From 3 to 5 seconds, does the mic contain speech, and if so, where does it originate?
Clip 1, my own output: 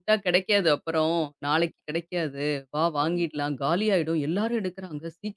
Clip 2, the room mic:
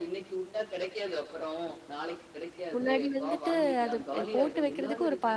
both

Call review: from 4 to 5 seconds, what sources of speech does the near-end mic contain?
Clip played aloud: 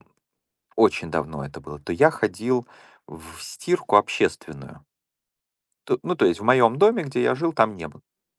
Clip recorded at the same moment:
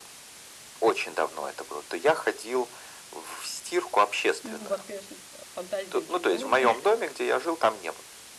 both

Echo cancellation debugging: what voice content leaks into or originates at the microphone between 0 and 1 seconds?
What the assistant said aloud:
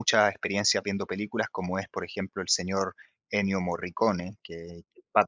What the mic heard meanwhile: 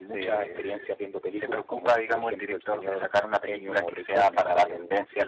both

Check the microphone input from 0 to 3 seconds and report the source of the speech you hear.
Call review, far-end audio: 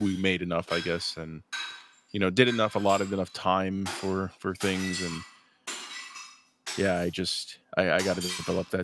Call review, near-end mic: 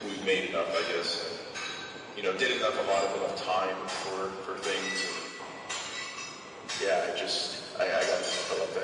echo only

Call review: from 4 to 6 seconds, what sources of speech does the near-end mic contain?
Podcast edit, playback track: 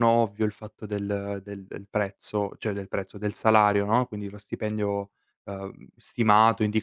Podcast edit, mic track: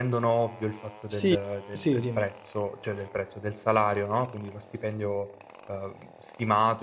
echo only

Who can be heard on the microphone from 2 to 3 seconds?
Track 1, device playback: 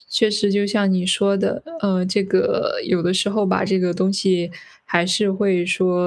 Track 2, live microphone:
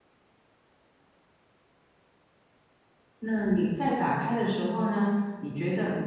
neither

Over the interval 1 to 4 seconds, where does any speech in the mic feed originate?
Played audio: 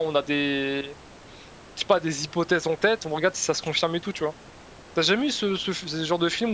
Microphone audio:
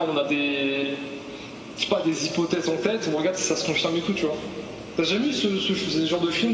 echo only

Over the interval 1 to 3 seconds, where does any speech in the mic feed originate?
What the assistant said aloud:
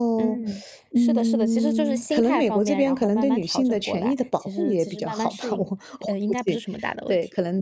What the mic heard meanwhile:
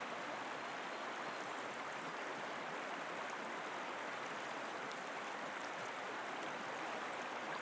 neither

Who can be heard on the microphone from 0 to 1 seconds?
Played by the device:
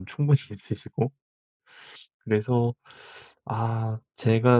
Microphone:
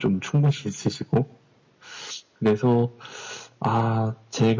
echo only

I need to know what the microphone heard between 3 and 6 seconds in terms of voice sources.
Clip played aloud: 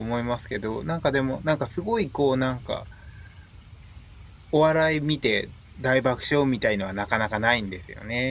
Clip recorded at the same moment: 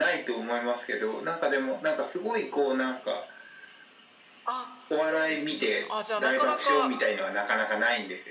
both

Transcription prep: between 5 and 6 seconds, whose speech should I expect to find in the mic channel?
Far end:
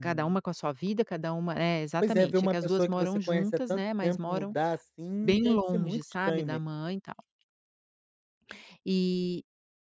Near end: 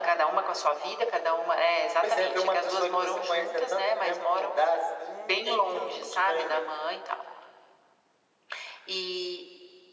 echo only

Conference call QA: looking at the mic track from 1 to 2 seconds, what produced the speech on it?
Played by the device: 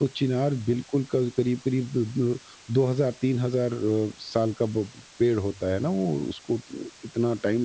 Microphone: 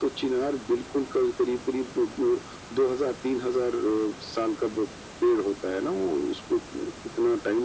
echo only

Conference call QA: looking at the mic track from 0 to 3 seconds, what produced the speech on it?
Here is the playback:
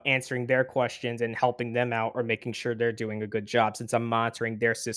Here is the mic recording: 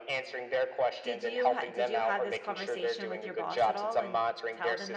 both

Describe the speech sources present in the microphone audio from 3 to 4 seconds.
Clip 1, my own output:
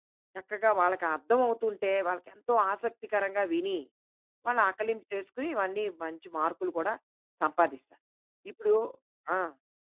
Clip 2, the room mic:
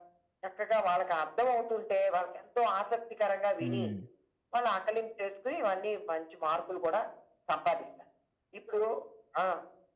both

